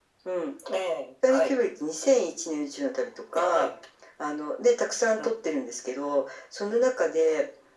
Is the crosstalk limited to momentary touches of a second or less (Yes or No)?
Yes